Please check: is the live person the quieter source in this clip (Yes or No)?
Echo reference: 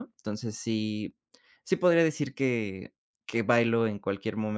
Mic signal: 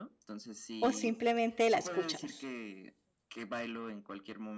No